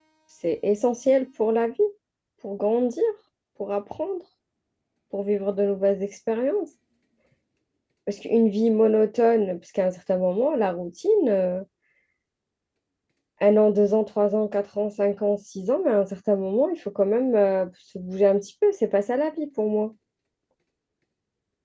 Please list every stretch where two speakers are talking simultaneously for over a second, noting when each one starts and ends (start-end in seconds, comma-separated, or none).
none